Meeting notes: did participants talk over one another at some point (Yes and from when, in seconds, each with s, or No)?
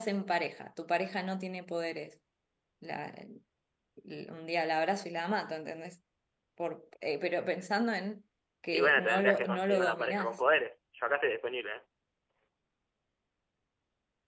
Yes, from 8.7 s